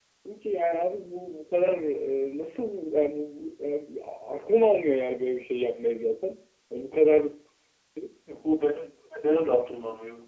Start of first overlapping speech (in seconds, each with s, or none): none